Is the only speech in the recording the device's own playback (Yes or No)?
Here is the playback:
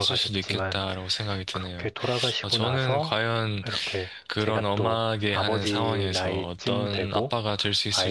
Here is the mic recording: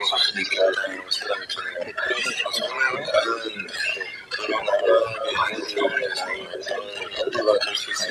Yes